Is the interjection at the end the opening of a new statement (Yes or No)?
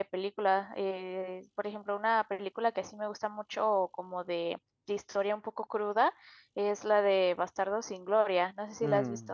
Yes